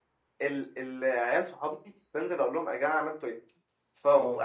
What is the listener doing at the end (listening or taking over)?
listening